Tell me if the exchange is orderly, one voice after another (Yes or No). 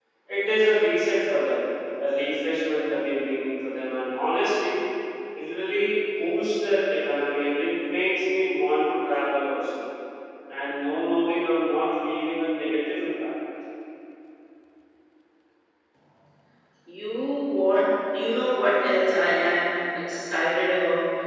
Yes